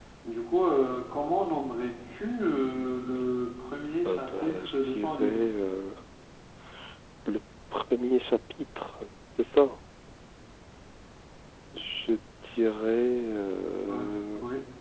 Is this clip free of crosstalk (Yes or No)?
No